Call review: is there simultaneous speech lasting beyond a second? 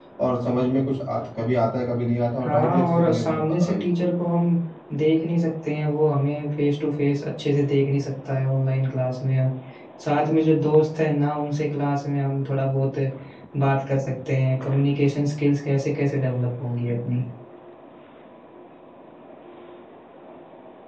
Yes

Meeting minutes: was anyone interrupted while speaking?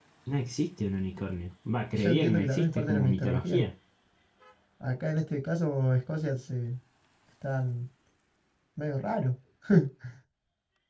Yes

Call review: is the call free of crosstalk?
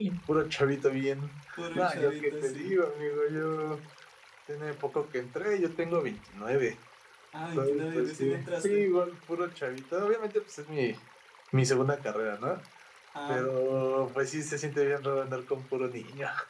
No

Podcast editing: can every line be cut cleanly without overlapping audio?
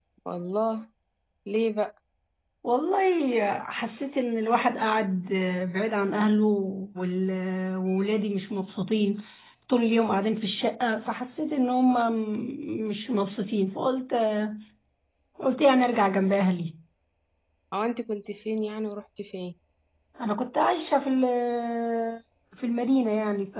Yes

